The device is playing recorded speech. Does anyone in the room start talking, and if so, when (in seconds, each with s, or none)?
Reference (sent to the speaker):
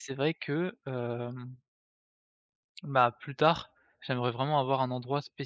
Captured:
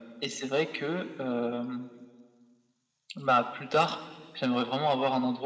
none